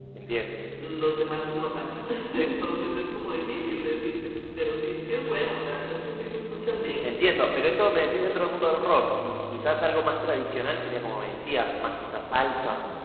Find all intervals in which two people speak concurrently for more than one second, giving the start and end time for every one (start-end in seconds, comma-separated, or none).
none